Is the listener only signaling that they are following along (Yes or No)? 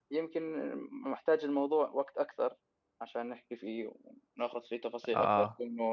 Yes